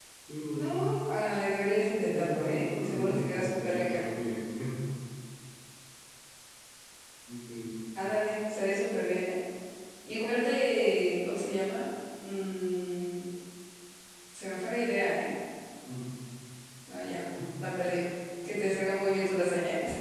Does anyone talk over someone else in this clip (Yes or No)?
Yes